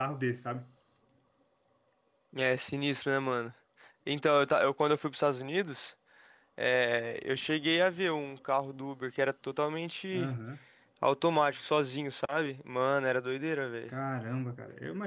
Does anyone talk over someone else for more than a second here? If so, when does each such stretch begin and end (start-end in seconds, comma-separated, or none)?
none